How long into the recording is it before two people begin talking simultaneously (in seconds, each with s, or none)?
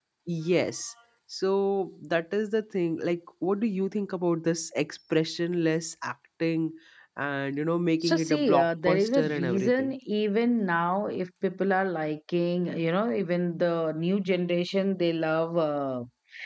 8.0 s